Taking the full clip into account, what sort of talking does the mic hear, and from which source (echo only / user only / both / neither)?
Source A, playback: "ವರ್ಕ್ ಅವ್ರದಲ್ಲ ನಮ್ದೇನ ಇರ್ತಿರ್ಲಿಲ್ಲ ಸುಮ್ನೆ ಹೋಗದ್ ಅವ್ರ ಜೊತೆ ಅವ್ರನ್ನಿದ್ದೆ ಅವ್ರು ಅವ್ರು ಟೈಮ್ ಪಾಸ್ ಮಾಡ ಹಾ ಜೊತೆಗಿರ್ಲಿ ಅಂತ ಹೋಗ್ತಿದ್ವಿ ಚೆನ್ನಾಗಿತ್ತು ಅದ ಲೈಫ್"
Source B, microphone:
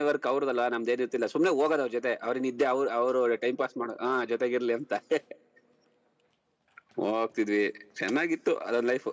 echo only